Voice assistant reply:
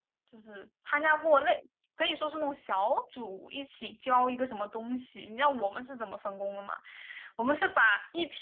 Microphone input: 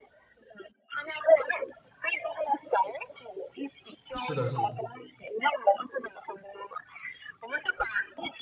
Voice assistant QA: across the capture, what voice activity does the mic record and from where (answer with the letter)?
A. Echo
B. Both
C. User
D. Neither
B